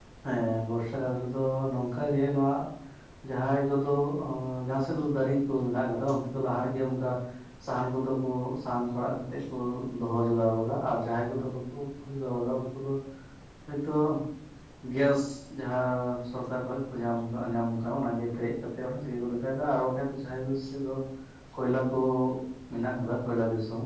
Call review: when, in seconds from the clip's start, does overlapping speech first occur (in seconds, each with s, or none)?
none